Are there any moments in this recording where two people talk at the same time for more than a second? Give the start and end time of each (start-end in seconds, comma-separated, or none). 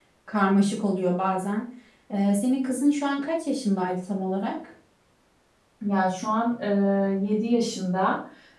none